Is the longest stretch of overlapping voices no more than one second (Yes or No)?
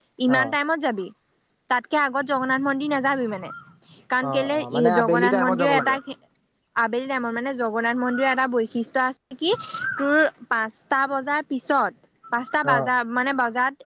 No